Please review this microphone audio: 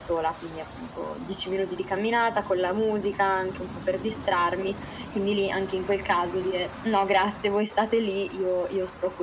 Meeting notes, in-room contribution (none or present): none